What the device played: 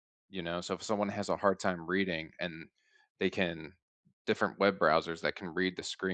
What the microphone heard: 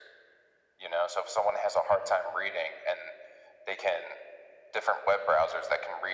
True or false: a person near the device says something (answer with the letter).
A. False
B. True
A